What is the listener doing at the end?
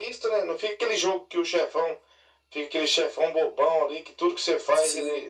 listening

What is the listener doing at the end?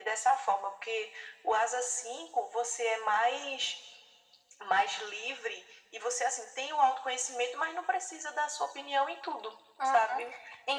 taking over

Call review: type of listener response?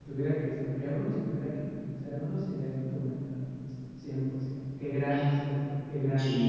taking over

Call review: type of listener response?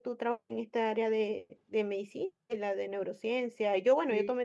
listening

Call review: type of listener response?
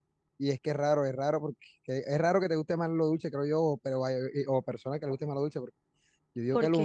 listening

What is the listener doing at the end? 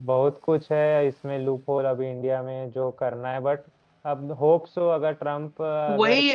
taking over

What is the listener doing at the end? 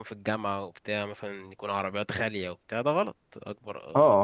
taking over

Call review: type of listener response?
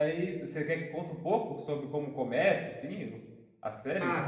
taking over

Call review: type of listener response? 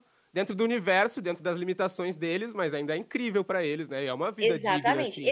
taking over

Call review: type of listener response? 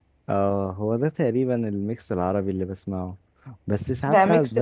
taking over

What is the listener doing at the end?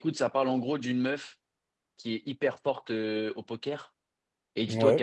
listening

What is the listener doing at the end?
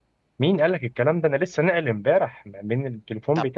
listening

